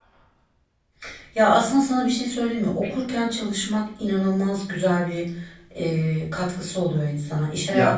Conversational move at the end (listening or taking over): listening